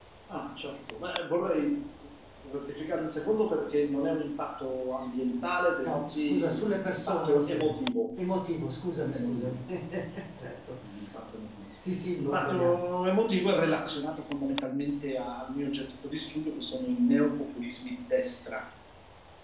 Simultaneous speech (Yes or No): Yes